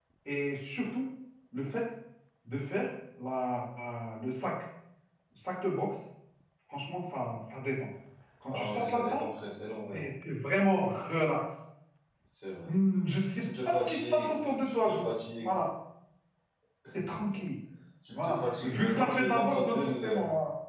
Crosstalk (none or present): present